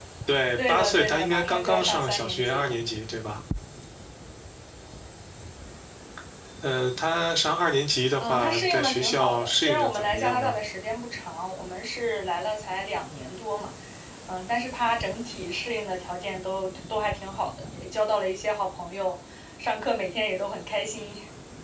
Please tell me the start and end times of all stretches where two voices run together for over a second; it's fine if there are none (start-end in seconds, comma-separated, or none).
0.6-2.8, 8.2-10.6